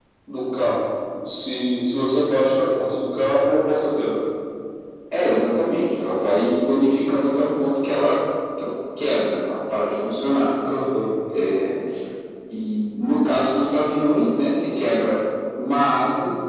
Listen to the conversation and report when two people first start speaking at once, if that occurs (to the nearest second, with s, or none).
none